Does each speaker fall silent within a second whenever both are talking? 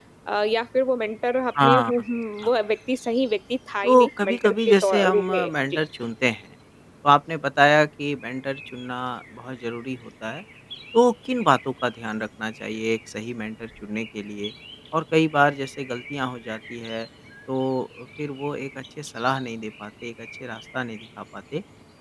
No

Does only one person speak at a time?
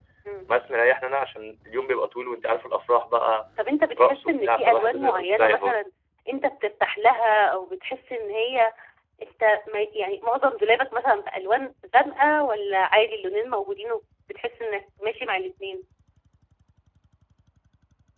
No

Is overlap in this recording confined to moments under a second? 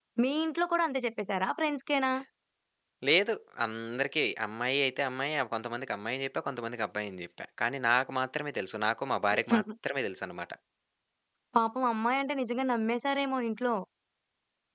Yes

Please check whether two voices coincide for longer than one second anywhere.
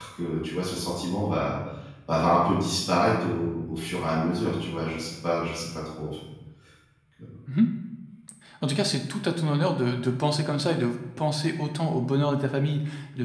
No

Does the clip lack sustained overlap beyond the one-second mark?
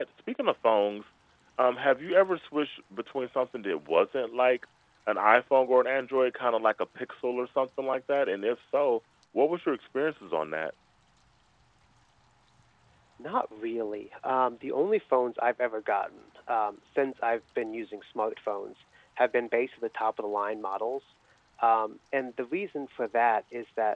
Yes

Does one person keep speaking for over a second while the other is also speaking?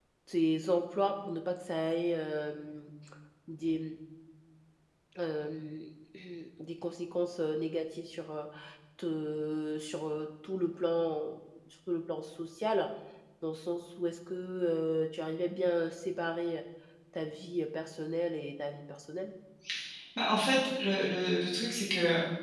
No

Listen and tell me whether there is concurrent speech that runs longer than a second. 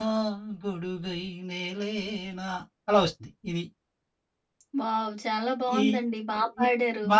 No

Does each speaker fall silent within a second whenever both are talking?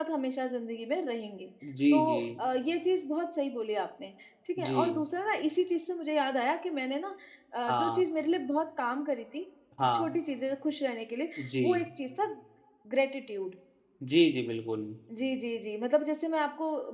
Yes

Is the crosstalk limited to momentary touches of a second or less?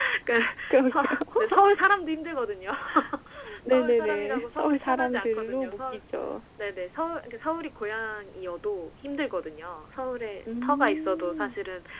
No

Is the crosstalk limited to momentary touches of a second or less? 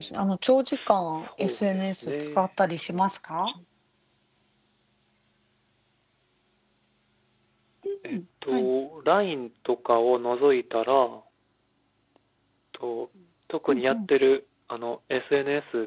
No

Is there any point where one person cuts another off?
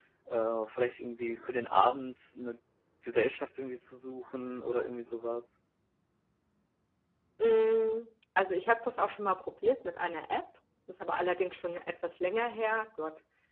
No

